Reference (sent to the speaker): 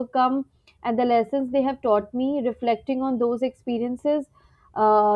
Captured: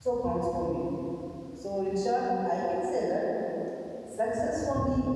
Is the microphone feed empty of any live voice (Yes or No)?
No